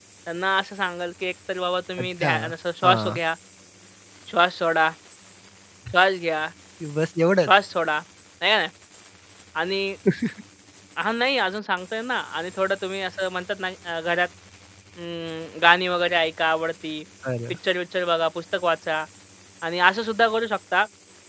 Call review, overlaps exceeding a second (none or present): none